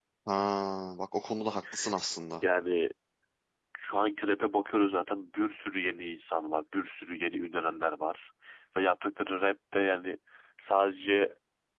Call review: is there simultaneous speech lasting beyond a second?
No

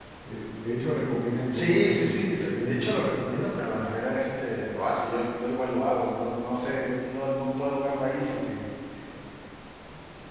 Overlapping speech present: Yes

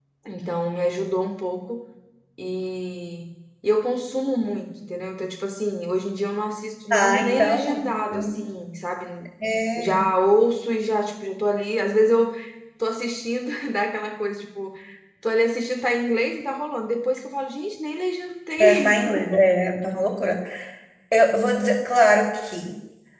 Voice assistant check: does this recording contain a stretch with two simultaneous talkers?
Yes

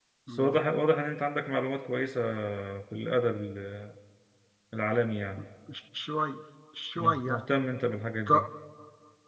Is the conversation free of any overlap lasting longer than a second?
Yes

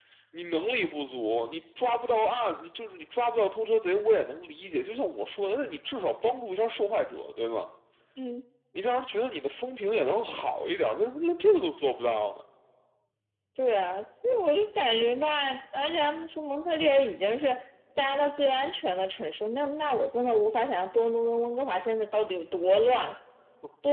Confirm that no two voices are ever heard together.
Yes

